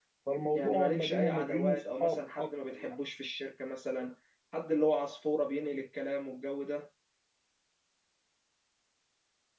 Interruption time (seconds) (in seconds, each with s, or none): 0.5 s